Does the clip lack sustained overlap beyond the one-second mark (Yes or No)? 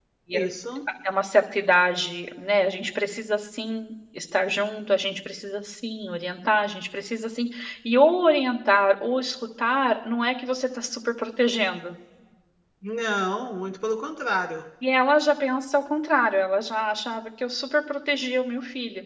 Yes